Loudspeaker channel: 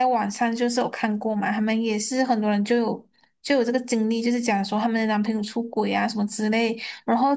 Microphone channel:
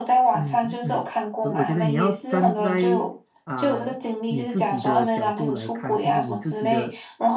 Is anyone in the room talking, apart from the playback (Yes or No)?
Yes